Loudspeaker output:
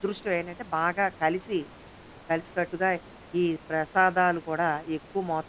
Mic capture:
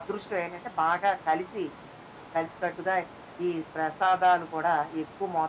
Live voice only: none

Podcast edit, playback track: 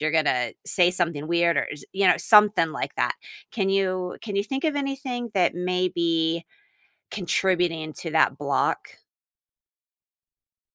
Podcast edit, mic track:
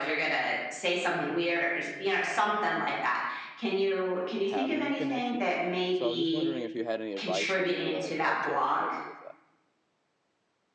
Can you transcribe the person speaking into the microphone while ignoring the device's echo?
have new connections so i was just wondering if you had any advice on maybe like how to help me with that

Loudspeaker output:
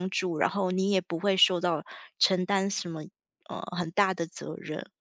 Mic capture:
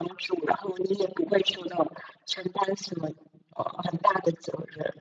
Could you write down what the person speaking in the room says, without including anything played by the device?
none

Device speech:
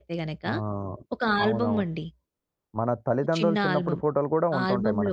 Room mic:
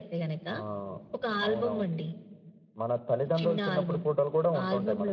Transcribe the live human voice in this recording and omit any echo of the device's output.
none

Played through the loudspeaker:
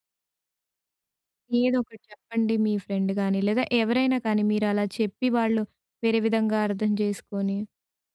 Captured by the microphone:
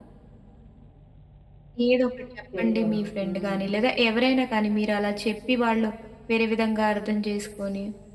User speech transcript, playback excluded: చెయ్యరు. హ్మ్.

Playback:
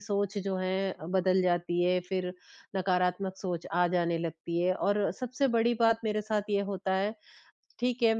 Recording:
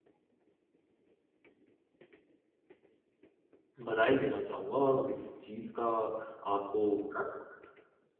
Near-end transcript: बधाई देना चाहूँगा और इस चीज़ का आपको गर्व होना

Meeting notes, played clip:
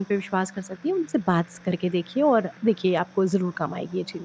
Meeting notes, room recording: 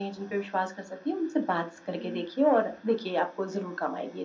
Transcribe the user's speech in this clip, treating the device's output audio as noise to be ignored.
हुँ, जी।

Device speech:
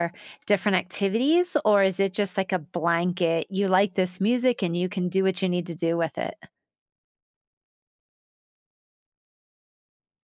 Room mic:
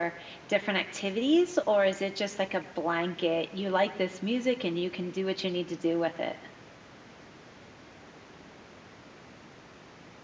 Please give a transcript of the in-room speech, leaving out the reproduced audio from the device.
none

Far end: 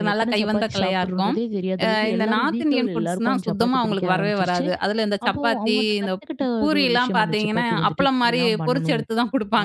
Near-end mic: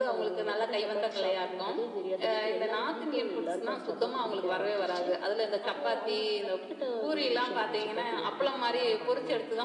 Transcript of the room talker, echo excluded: none

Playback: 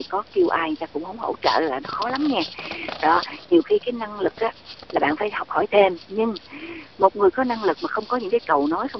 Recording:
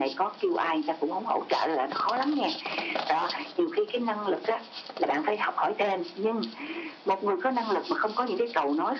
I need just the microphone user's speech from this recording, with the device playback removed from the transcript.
none

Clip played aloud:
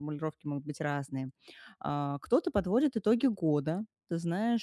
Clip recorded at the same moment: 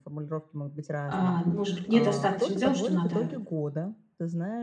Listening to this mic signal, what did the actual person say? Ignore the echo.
а, может быть, недостаточно дел, что надо

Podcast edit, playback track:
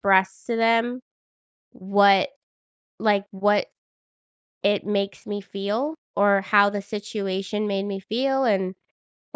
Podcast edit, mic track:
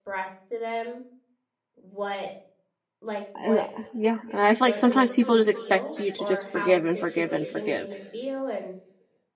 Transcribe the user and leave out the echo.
And, uh, yeah, and I feel like sometimes people just expect you to just forgive and forgive and forgive.

